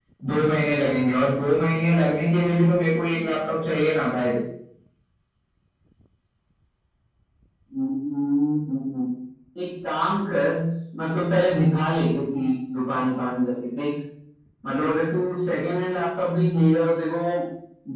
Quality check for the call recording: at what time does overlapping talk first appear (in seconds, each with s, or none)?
none